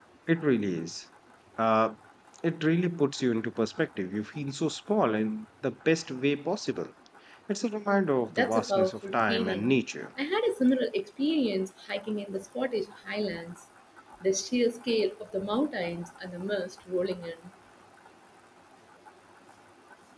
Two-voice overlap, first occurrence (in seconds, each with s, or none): 8.3 s